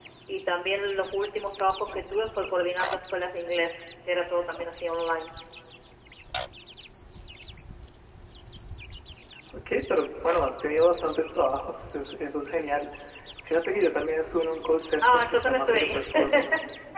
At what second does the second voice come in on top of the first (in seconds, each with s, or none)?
15.0 s